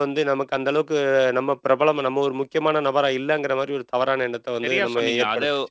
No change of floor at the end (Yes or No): No